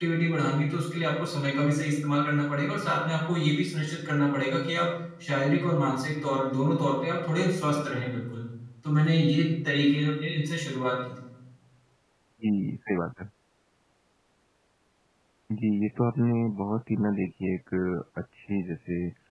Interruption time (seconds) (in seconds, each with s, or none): none